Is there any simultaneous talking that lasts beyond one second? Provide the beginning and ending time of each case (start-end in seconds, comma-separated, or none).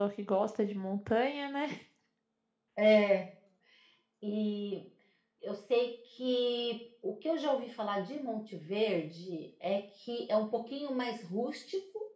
none